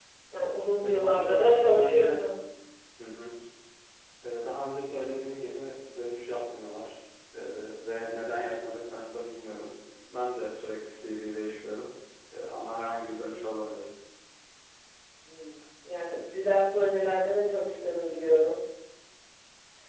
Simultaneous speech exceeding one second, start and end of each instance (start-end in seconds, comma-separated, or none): 0.8-2.0